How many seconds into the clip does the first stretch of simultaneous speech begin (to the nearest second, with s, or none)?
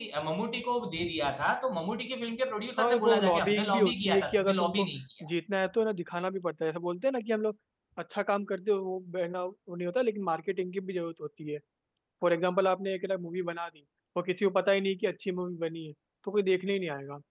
3 s